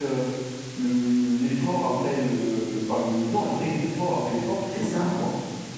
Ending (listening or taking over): listening